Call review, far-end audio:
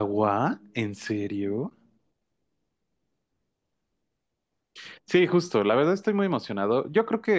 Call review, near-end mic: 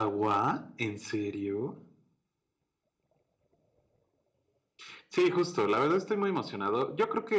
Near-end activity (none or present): none